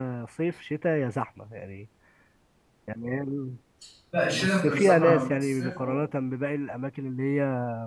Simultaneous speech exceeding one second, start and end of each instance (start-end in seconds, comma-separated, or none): 4.3-6.0